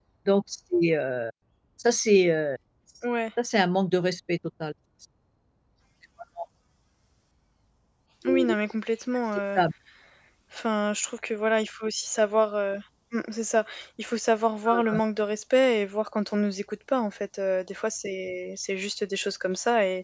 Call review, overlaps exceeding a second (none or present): none